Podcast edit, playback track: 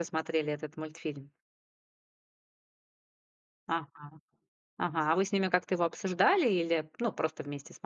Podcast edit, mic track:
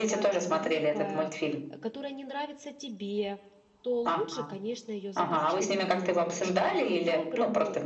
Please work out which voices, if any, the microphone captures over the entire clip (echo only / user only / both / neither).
both